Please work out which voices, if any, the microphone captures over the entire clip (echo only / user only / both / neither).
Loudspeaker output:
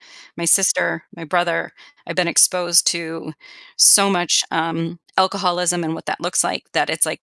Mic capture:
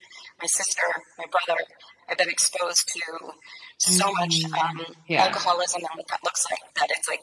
both